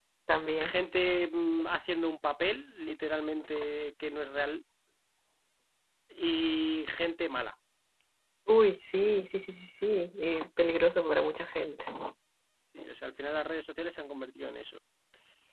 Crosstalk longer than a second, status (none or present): none